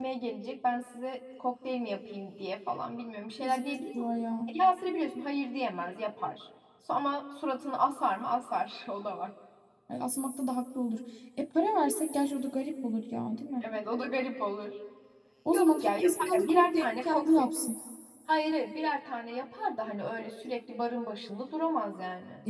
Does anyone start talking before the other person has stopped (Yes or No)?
Yes